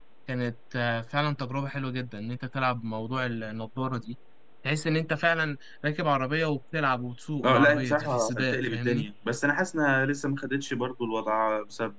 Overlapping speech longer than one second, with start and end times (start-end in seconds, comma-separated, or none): 7.4-9.1